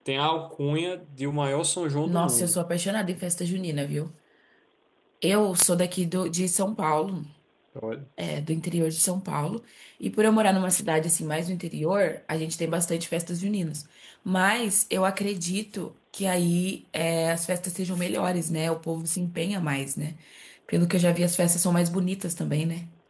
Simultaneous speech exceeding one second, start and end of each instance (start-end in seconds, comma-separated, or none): none